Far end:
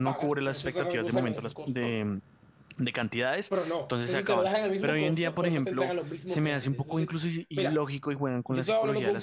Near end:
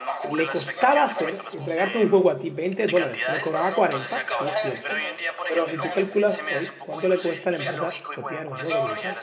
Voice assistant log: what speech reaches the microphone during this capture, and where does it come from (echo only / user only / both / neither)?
both